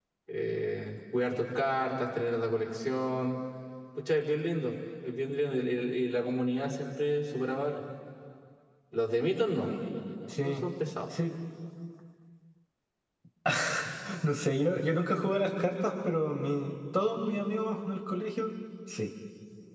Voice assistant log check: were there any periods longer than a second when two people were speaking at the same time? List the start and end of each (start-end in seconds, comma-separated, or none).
none